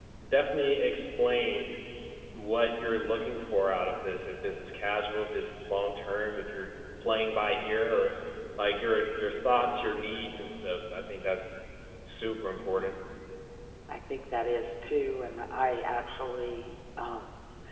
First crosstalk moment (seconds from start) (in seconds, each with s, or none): none